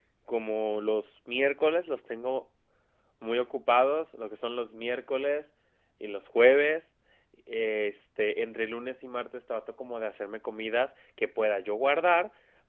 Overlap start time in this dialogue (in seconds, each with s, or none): none